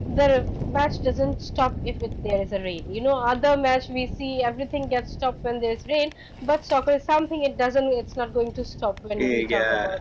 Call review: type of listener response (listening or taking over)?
taking over